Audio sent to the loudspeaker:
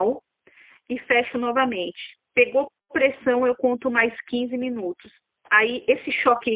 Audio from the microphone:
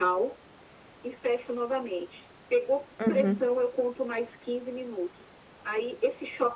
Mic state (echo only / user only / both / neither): both